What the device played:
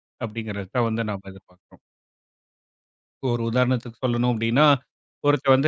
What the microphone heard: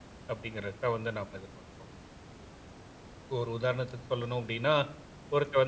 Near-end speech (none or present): none